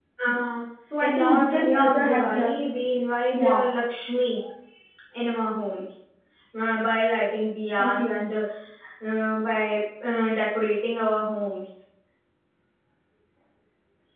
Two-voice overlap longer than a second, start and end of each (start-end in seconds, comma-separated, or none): 1.0-2.5